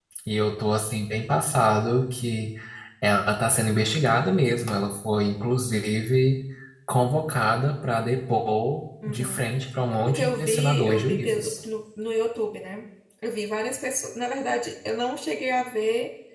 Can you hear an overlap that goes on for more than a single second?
Yes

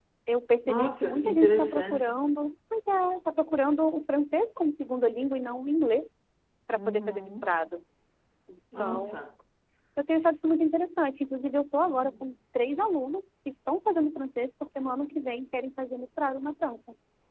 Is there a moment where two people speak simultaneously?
Yes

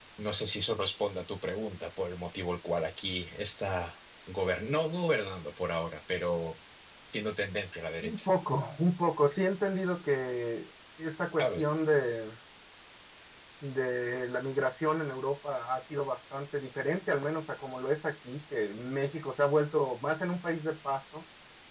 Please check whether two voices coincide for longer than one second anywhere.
No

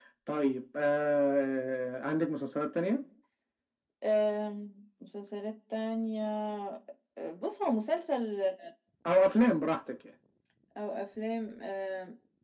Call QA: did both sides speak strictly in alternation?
Yes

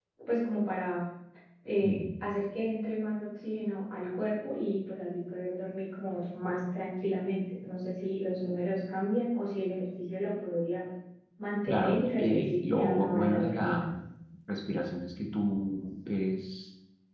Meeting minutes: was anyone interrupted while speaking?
Yes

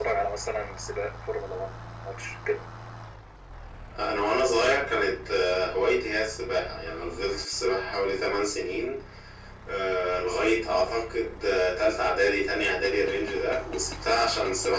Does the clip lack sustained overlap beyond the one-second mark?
Yes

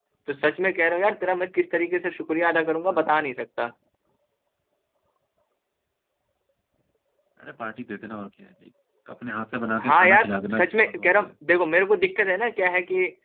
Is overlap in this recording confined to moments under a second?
No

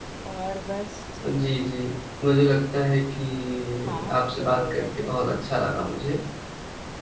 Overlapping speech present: Yes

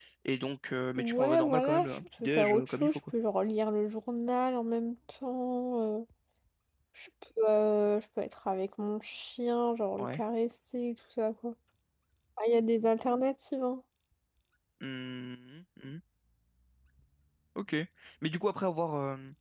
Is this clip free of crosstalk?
No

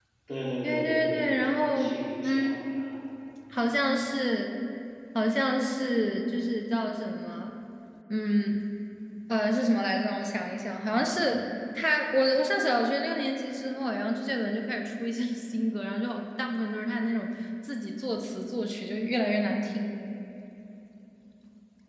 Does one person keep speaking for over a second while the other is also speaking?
Yes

